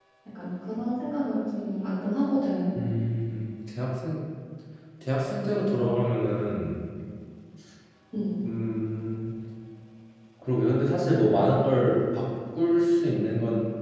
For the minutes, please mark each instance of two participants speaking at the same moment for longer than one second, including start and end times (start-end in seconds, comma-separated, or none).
none